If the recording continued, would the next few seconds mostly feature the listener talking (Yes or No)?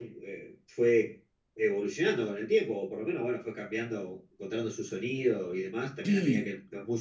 No